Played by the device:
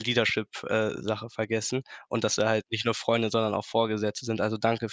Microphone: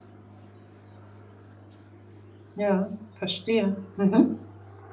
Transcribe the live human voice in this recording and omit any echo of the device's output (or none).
Ja, verstehe. Mhm.